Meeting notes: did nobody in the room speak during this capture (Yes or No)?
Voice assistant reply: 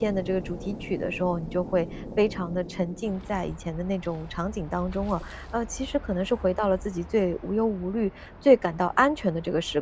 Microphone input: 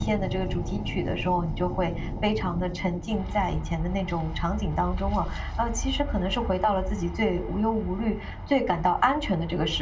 Yes